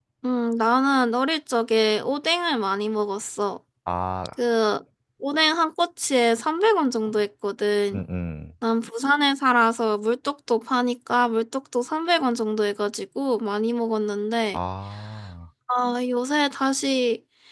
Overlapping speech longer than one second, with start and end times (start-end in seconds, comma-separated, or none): none